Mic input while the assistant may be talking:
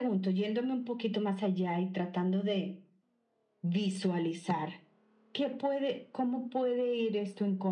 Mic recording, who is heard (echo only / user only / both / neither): echo only